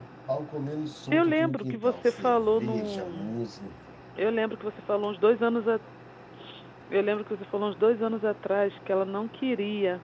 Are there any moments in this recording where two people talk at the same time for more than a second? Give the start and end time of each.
1.1-3.4

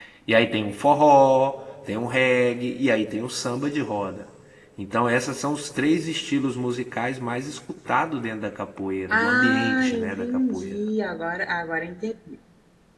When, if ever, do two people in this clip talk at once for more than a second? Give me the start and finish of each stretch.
9.1-10.8

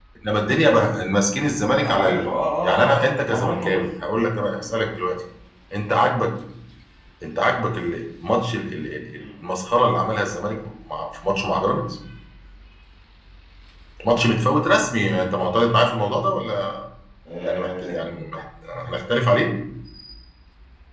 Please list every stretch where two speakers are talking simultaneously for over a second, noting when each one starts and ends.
2.6-3.8

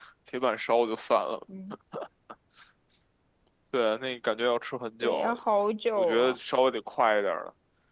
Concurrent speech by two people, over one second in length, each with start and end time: none

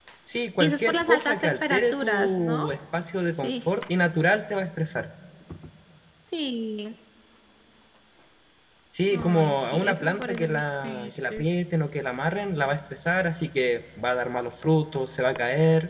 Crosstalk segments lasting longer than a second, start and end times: 0.6-2.6, 9.1-11.4

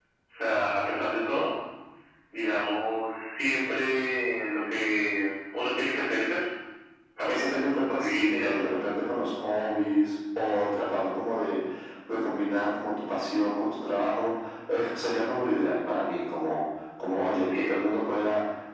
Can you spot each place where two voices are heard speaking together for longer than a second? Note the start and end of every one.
7.3-8.5

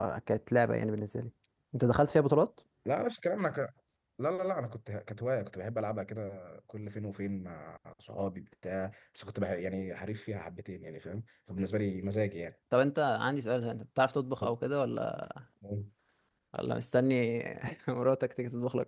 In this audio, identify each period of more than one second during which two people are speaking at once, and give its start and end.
none

